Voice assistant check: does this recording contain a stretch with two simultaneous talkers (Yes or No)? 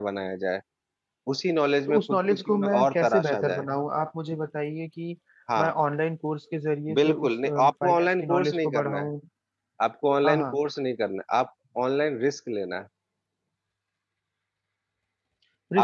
Yes